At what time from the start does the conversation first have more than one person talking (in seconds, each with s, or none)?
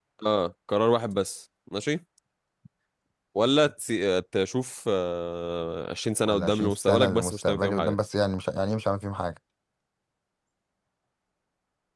6.3 s